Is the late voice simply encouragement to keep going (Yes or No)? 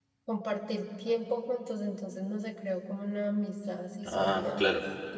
No